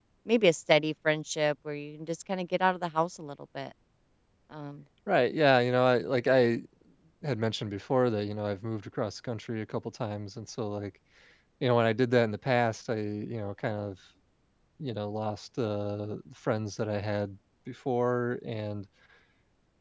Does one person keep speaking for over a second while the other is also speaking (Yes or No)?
No